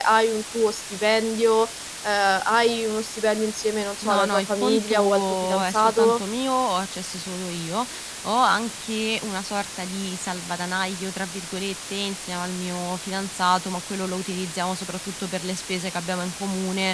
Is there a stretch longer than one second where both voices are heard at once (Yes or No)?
Yes